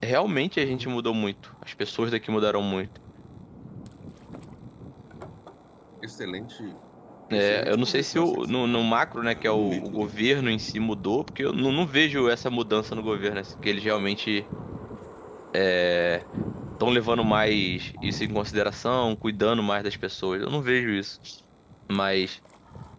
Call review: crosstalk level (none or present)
present